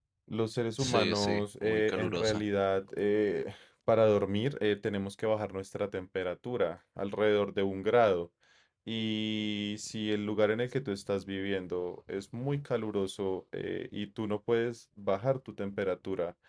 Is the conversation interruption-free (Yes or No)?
No